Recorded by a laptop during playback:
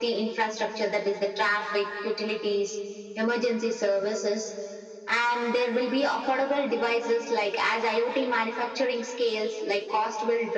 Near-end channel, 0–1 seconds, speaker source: echo only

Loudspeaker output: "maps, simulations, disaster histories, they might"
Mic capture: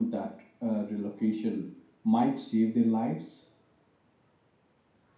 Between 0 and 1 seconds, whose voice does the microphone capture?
user only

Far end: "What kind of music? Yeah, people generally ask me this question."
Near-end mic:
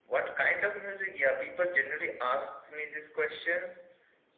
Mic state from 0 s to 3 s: echo only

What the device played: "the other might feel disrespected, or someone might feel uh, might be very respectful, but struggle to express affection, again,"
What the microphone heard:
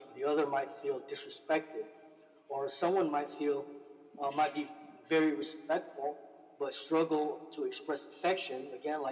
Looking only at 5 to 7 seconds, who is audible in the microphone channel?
echo only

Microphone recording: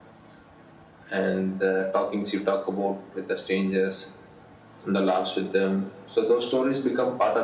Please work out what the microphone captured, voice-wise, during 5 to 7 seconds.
echo only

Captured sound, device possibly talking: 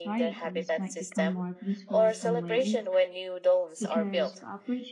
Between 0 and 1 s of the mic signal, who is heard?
both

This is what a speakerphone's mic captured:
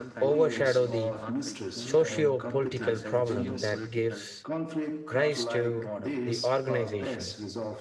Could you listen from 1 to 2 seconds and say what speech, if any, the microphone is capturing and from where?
both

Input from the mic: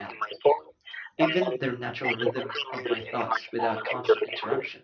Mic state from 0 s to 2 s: both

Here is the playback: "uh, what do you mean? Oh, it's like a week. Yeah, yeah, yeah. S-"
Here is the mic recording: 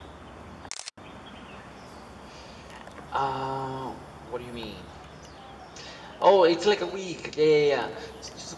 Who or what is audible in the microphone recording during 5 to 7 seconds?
echo only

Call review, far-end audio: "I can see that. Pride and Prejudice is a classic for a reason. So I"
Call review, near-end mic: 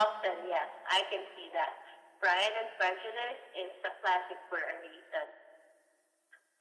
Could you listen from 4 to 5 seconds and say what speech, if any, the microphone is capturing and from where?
echo only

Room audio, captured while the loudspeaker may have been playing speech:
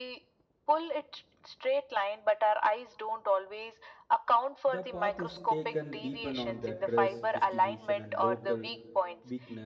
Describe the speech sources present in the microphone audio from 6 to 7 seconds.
both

